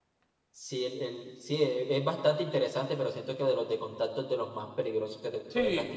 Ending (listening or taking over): taking over